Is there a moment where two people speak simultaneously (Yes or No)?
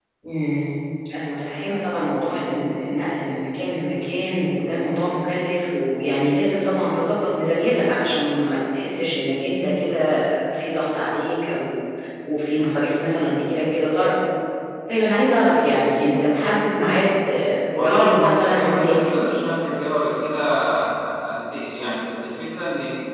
Yes